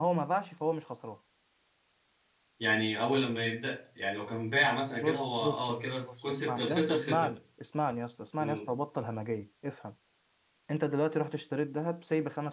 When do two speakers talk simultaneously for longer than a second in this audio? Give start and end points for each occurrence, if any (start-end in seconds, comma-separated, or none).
5.0-7.3